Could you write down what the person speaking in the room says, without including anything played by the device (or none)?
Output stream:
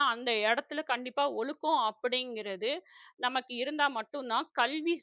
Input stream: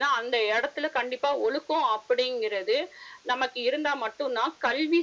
none